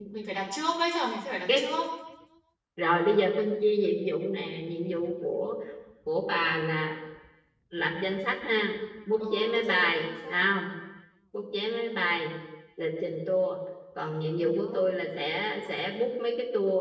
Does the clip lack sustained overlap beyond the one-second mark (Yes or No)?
No